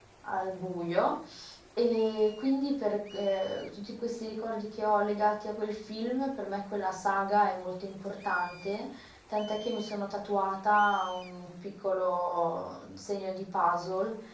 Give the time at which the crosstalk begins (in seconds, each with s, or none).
none